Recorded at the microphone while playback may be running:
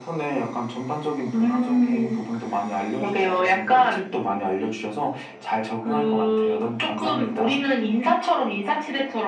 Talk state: echo only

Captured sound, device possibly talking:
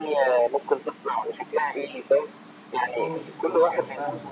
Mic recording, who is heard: both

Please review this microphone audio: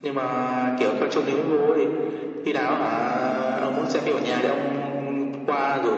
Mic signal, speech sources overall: echo only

